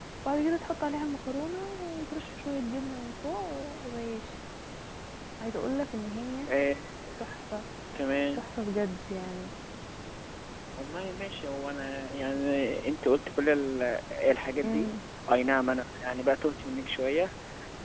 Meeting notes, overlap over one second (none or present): none